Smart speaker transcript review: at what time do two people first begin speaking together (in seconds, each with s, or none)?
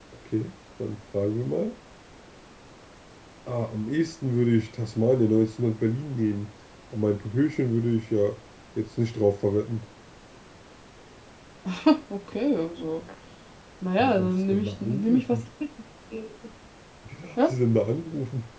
14.0 s